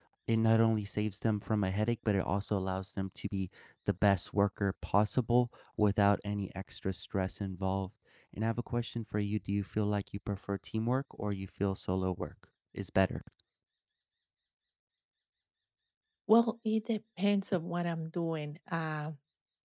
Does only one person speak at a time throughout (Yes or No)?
Yes